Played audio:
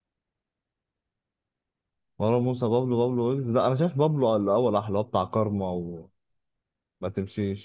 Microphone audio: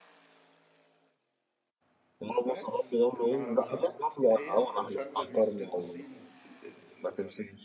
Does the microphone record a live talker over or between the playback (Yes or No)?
Yes